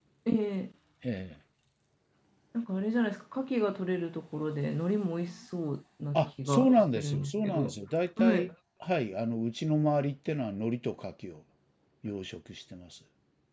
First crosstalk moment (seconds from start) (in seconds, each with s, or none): 6.1 s